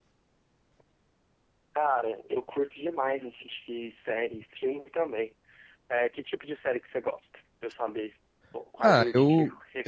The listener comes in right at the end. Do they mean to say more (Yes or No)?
Yes